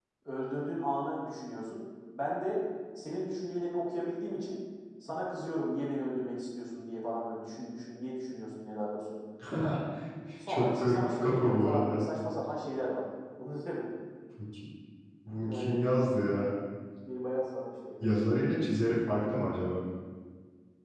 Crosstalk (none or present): present